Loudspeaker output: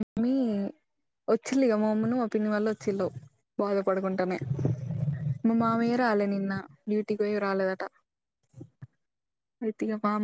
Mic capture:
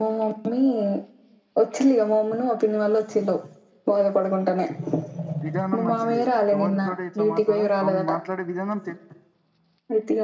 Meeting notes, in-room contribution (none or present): present